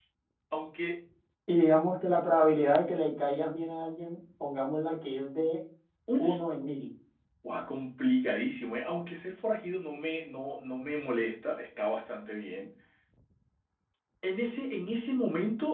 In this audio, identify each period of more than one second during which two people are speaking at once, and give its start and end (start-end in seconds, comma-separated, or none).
none